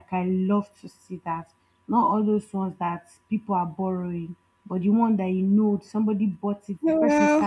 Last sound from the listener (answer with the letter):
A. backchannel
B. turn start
A